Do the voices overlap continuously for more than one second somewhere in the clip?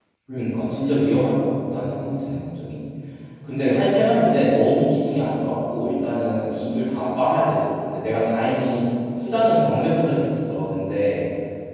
No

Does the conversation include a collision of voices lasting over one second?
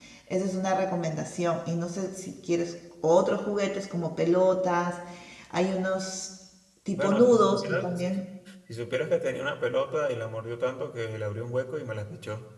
Yes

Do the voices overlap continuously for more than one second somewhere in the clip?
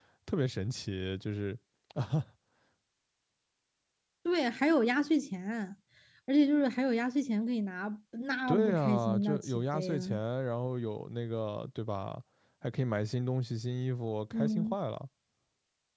Yes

